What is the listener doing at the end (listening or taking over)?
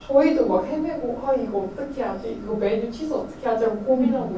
listening